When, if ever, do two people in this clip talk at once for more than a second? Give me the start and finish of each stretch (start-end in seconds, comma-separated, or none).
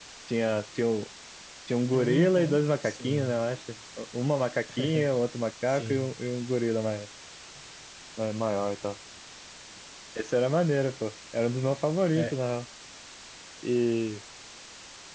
1.9-3.4